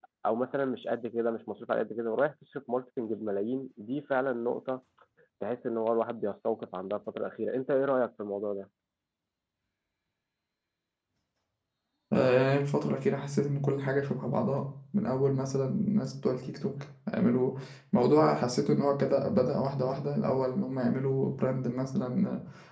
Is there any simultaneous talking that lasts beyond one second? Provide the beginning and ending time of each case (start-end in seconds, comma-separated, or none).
none